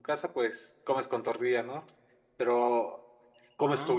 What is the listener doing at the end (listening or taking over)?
listening